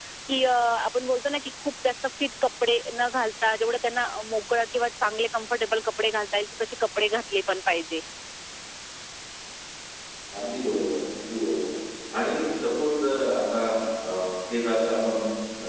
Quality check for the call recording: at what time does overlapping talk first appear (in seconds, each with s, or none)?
none